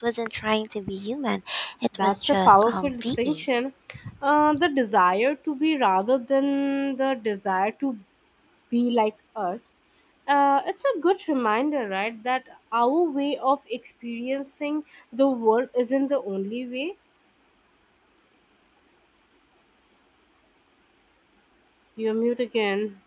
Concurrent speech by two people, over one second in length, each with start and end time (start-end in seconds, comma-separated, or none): 2.0-3.4